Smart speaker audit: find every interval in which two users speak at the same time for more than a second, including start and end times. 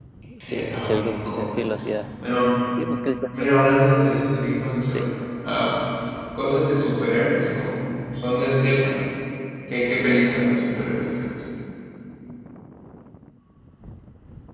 0.5-2.0

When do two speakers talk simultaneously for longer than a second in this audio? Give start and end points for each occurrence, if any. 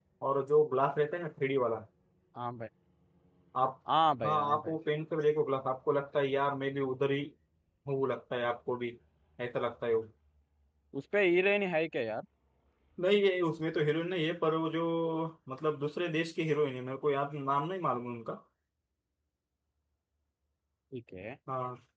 none

